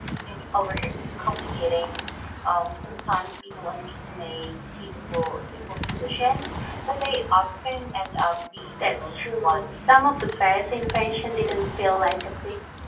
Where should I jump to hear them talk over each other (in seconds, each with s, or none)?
8.8 s